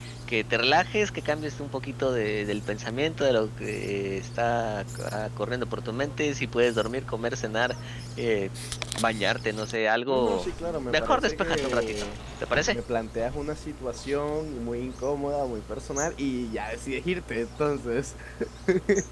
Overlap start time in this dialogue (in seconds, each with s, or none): 10.1 s